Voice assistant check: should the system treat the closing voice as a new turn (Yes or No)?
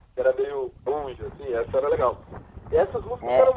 No